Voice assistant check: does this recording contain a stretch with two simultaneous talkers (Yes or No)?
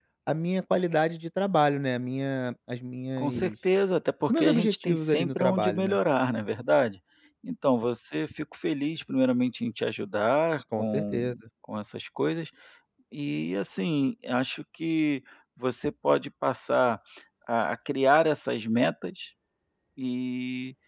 Yes